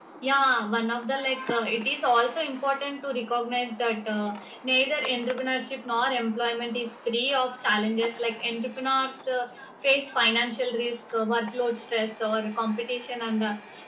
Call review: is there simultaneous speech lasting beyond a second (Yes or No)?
No